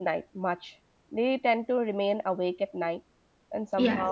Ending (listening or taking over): taking over